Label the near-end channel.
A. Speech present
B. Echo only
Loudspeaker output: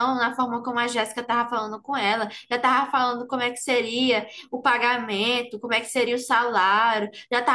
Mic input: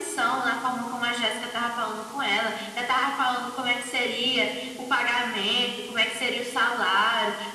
B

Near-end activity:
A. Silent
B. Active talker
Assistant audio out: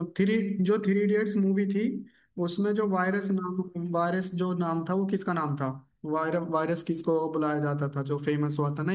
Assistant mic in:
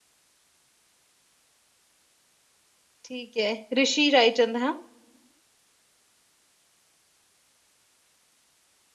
B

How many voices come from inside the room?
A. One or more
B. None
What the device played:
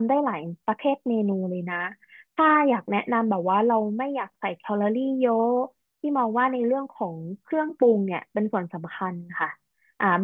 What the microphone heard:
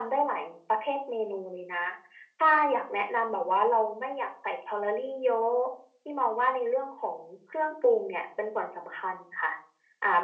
B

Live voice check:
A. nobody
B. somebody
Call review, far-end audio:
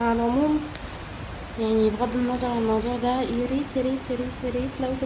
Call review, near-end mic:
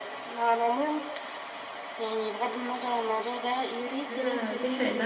B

